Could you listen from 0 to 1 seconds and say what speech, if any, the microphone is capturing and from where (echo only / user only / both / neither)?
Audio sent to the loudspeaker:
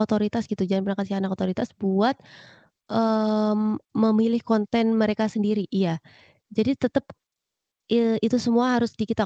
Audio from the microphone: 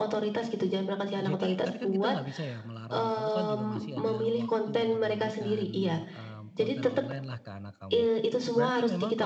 echo only